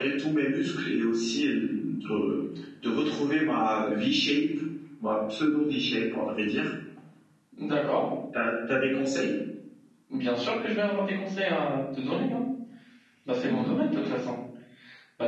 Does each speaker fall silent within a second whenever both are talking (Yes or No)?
Yes